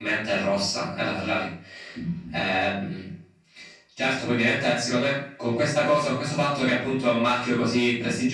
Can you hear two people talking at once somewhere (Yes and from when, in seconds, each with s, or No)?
No